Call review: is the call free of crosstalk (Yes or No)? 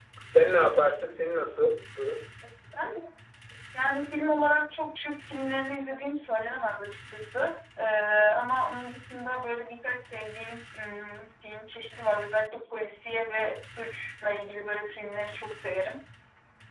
Yes